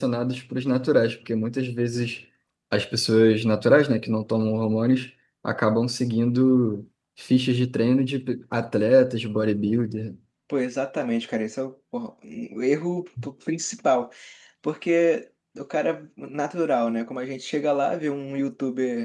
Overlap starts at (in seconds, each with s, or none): none